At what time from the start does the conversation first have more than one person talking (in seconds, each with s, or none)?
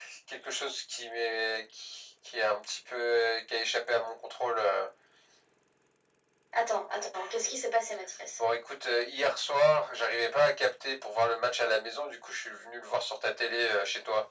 none